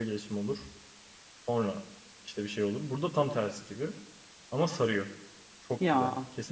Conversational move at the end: taking over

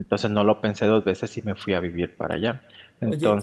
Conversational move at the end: taking over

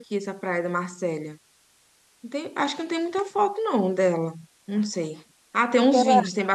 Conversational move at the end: listening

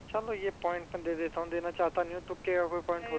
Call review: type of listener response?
taking over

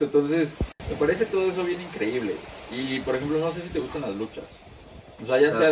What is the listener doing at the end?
listening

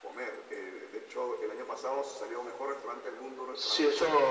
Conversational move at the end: taking over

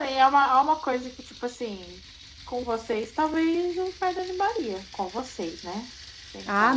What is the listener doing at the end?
taking over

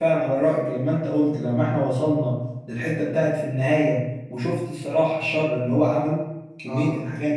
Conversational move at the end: taking over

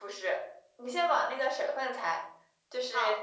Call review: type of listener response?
listening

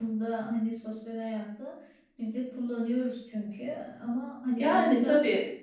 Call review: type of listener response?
taking over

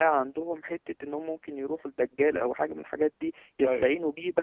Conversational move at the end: listening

